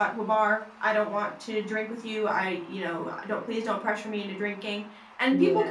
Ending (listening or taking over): listening